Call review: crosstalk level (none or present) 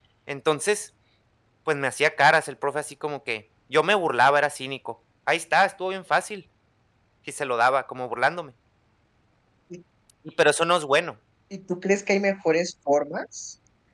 none